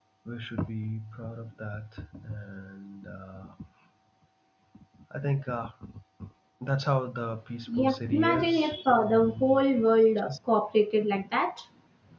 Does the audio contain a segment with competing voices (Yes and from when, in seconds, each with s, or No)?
Yes, from 7.7 s